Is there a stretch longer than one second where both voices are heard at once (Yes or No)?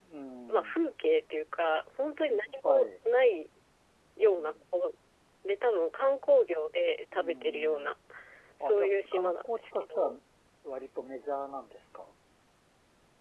Yes